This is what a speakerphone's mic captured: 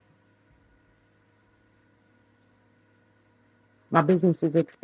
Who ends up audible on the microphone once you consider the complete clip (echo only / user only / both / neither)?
user only